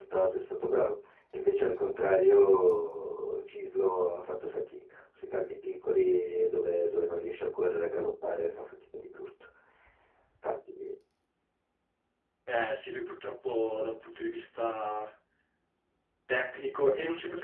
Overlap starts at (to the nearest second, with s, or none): none